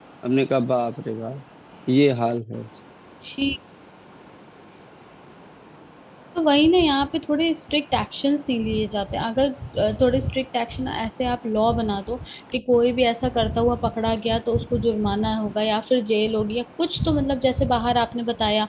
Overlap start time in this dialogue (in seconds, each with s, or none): none